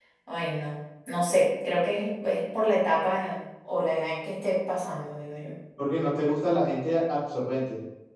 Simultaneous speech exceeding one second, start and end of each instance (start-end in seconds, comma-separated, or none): none